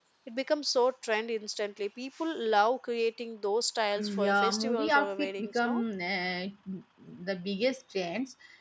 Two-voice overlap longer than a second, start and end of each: 4.0-5.7

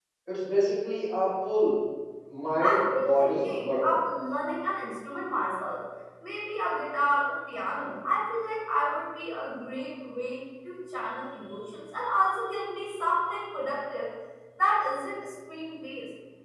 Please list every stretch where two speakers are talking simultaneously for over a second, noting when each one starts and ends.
2.6-4.0

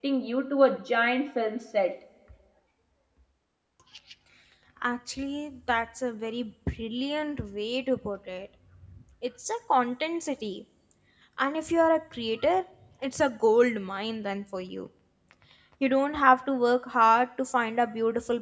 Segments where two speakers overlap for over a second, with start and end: none

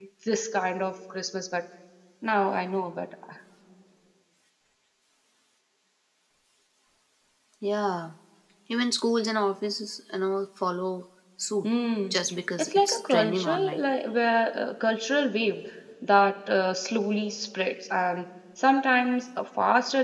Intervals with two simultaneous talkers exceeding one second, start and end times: 12.6-13.8

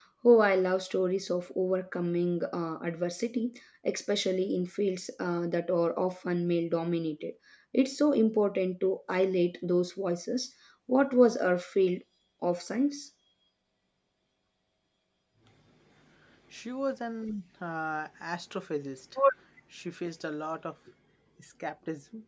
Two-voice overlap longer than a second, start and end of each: none

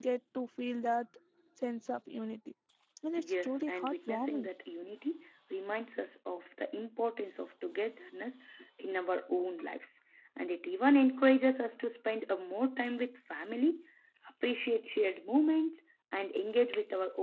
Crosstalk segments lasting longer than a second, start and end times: 3.2-4.5

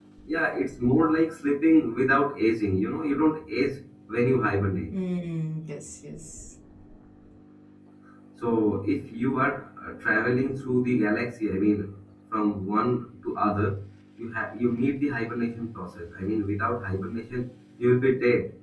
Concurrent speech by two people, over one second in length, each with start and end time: none

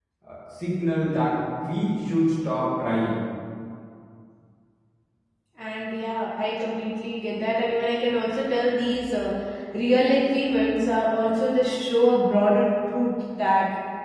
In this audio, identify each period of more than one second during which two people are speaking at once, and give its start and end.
none

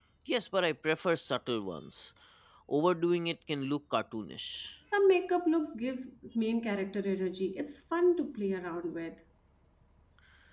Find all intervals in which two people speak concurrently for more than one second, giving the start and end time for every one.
none

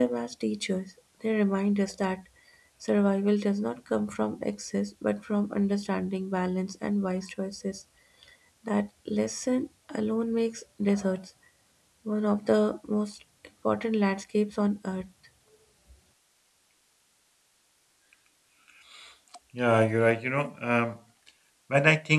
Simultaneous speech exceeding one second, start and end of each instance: none

